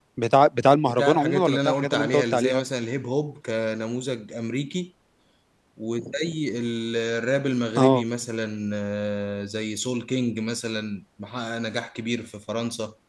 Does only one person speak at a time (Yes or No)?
No